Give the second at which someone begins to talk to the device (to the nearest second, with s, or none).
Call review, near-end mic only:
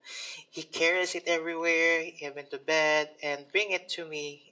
none